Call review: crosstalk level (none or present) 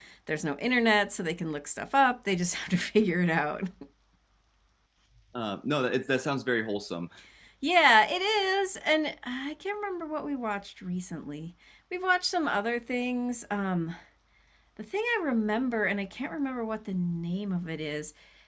none